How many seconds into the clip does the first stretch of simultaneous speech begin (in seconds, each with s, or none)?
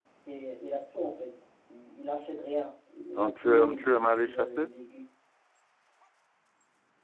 3.2 s